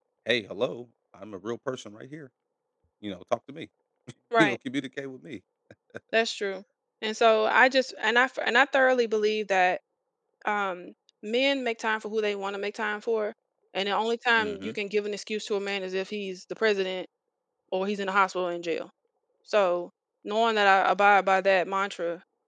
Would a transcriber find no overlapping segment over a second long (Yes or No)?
Yes